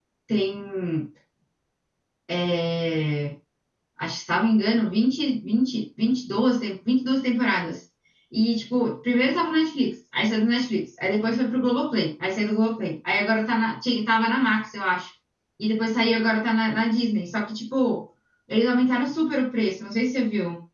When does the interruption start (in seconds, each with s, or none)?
none